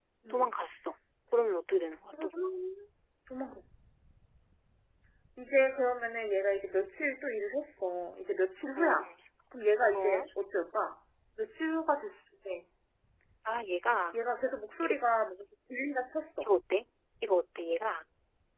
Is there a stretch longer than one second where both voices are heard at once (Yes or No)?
No